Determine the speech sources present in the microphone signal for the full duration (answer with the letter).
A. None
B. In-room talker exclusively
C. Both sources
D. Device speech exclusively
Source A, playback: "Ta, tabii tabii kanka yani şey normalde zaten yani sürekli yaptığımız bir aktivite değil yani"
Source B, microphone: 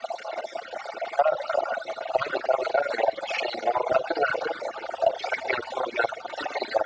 D